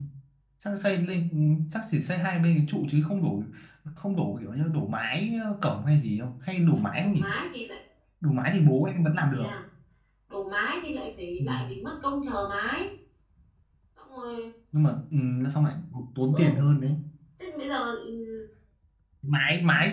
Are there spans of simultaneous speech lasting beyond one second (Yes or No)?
No